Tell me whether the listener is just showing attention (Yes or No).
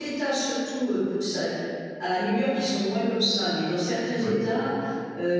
Yes